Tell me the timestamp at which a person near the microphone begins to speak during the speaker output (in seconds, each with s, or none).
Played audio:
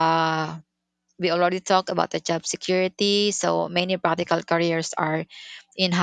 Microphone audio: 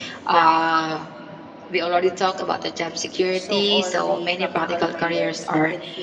3.3 s